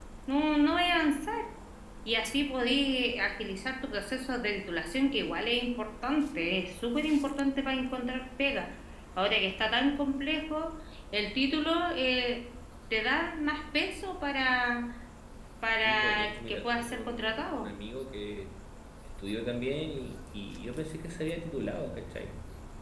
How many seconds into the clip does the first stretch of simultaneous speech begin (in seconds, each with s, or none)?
15.8 s